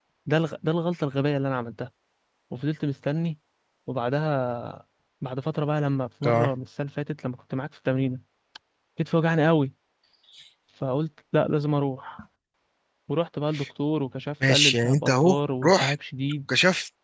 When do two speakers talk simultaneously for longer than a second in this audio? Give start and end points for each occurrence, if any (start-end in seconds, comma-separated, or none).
14.5-15.9